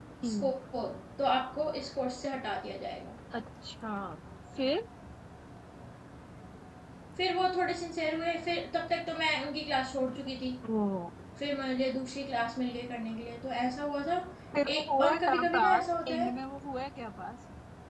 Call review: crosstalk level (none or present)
present